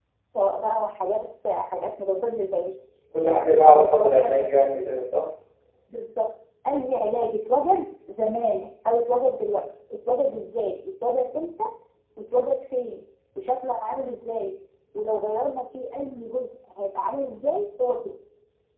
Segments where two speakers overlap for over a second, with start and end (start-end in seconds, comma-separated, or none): 3.2-4.9